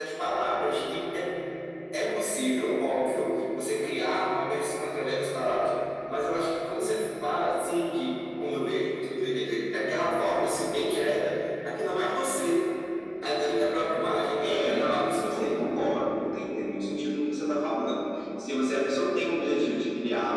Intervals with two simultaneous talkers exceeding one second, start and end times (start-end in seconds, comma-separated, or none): 14.4-15.7